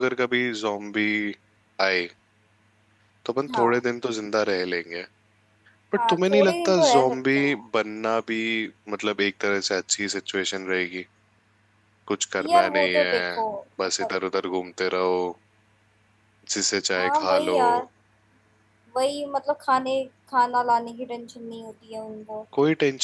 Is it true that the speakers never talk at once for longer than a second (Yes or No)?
No